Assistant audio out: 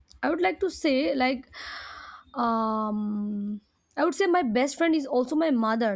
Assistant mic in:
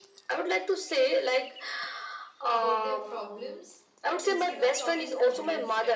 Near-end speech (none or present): present